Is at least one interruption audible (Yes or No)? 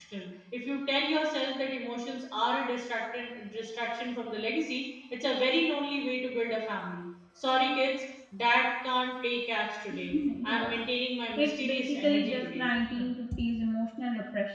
Yes